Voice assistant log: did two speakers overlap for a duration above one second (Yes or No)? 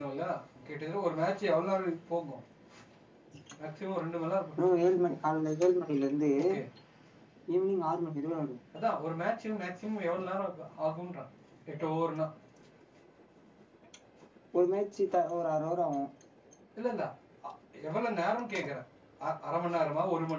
No